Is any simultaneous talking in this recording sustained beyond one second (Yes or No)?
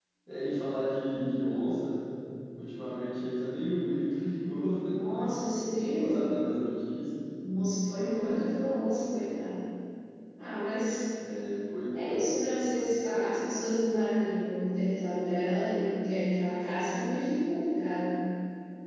No